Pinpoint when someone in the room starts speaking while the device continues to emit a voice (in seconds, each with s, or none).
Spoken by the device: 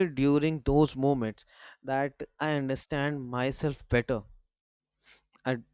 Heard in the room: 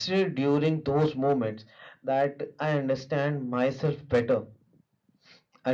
none